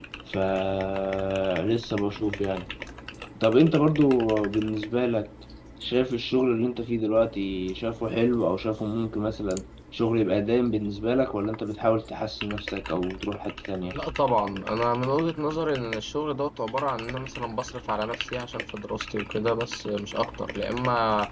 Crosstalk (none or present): none